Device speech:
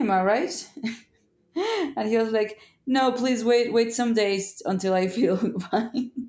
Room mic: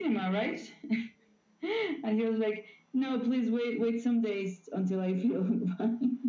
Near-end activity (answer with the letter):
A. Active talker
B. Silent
B